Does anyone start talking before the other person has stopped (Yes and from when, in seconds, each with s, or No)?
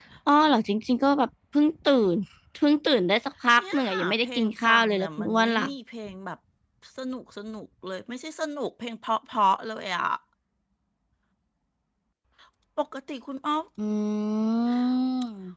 Yes, from 3.6 s